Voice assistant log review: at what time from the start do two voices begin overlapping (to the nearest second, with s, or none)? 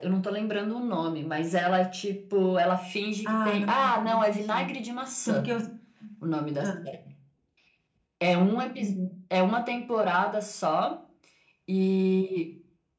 3 s